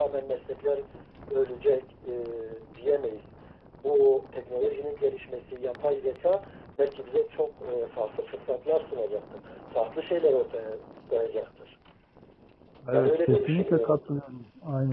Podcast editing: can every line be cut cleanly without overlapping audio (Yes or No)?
No